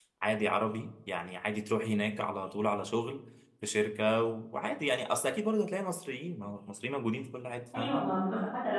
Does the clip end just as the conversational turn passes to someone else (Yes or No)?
Yes